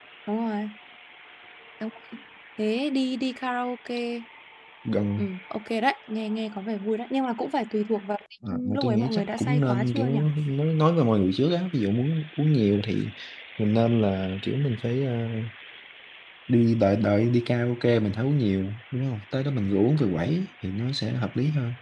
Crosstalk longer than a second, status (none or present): present